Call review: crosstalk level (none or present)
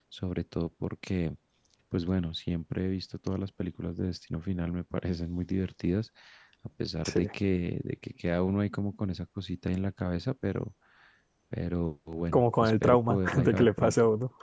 present